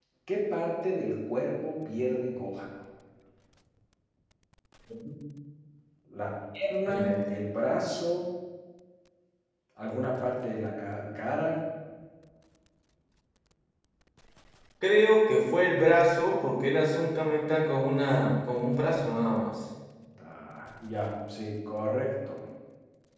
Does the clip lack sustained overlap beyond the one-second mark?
Yes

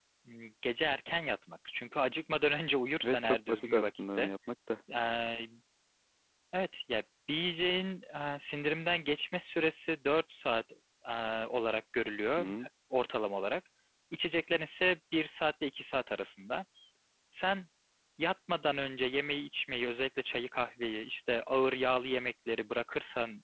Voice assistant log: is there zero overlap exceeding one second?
No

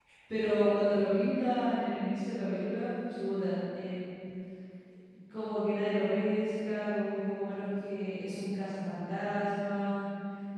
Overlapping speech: No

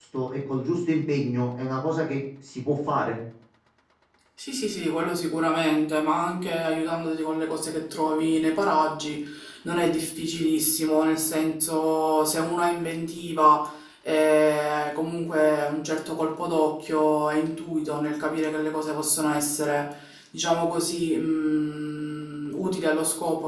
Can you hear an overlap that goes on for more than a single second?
No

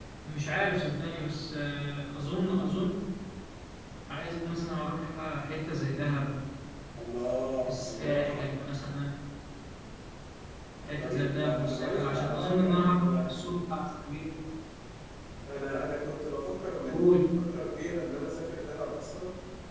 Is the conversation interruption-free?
No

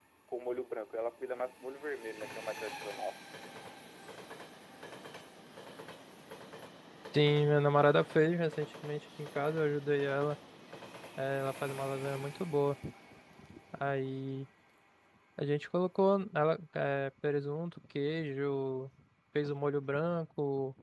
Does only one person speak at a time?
Yes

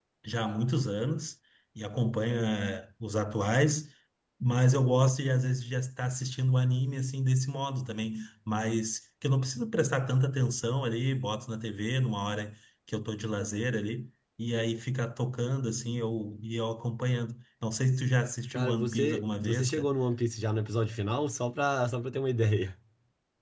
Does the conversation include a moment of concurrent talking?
Yes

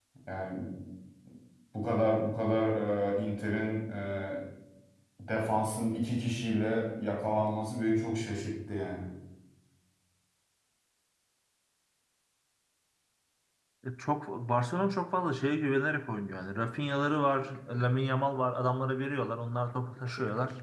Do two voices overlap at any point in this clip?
No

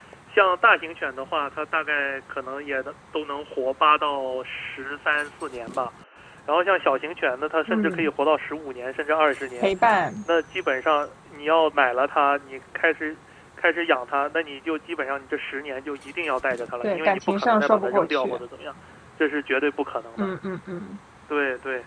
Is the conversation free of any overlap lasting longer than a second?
No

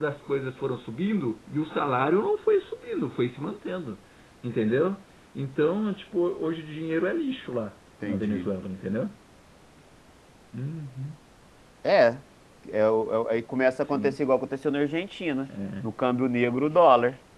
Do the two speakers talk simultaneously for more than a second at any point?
No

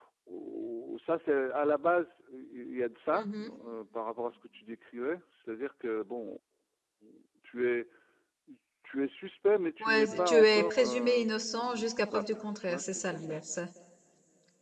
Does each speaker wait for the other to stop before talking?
No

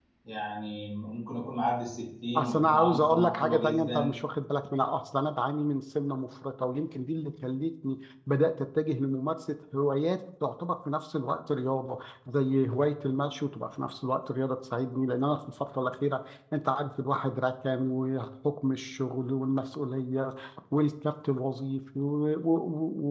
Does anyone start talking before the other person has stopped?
Yes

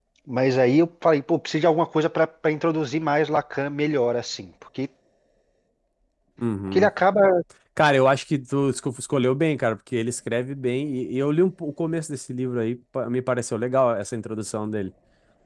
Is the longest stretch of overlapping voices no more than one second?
Yes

